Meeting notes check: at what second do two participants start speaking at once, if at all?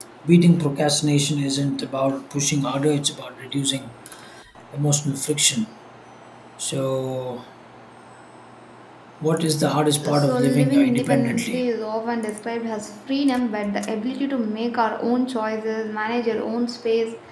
10 s

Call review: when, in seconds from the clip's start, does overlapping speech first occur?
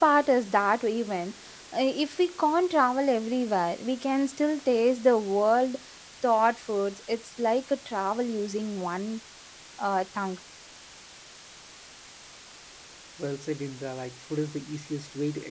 none

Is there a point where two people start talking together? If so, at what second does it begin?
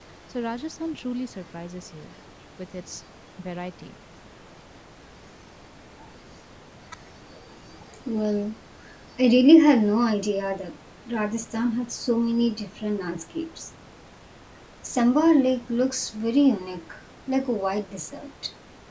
none

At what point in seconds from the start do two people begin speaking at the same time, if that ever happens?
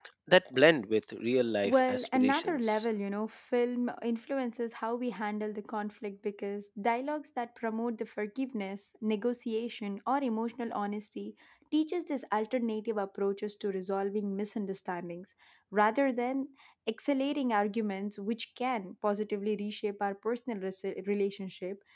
2 s

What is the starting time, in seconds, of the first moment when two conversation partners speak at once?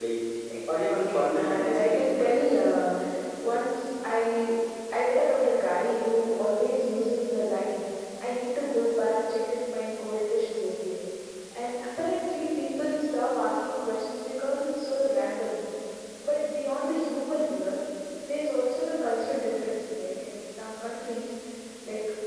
1 s

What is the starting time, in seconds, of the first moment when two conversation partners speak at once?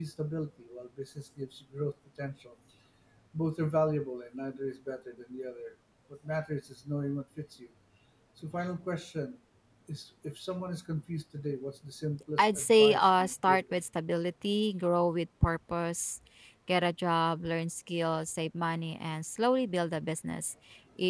12 s

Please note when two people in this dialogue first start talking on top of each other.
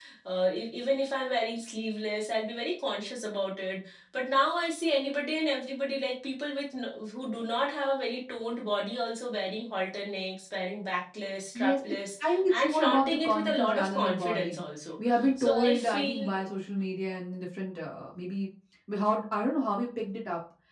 12 s

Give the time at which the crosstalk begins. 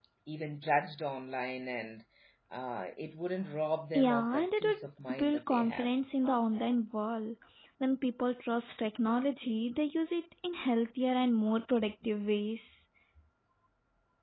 4 s

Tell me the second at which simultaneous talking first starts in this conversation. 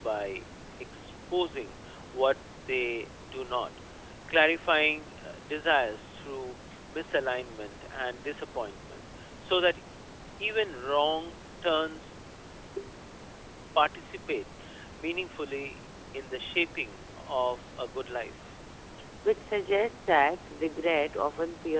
none

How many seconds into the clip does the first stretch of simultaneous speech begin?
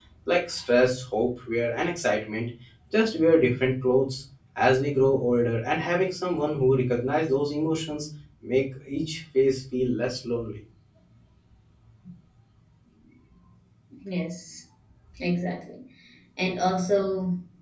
none

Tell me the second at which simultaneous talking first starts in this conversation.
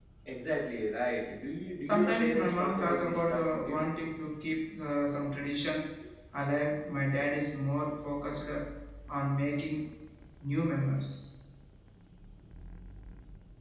2 s

